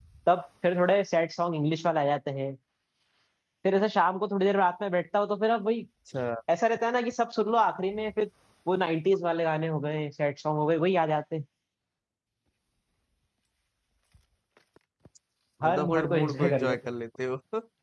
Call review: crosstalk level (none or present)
present